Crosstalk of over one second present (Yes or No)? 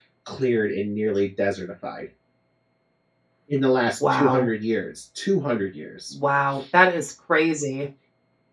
No